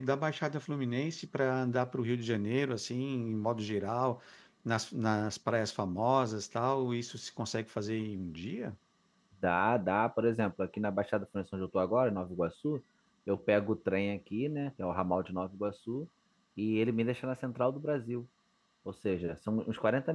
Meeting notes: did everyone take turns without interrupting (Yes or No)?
Yes